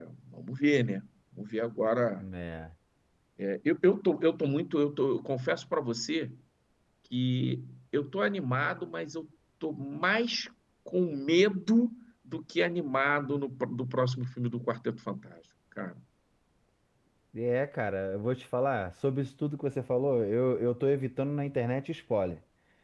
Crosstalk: none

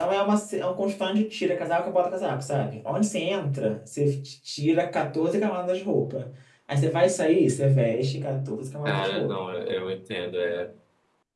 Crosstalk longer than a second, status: none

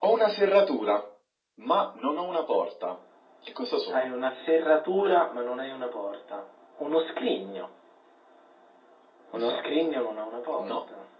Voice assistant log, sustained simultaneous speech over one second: none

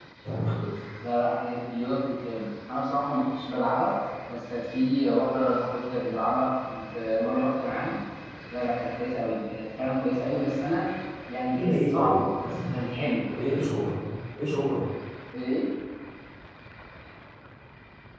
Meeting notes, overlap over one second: present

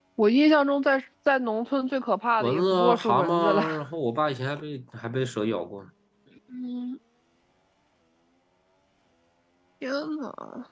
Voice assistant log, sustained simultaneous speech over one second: present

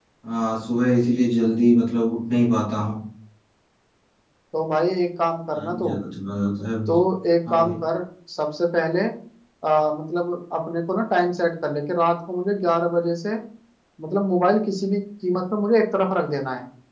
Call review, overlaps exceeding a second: none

